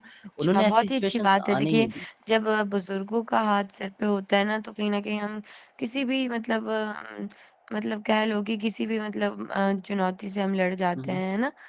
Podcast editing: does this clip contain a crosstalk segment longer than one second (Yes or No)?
Yes